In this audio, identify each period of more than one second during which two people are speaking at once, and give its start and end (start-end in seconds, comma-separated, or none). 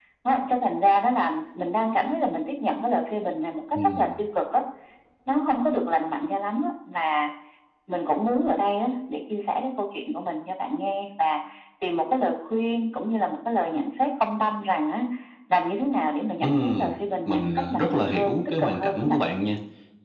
17.3-19.2